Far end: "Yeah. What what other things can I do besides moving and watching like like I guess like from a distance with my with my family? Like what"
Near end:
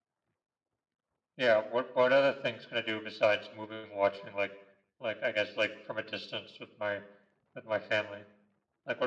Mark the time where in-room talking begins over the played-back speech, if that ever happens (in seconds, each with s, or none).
none